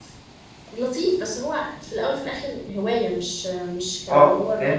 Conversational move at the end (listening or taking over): taking over